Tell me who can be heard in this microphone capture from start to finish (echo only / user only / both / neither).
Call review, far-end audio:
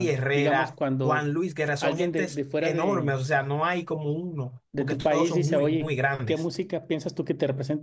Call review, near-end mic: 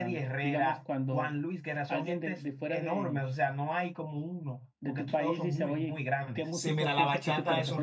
both